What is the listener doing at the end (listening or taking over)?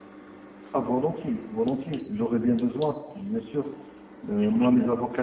listening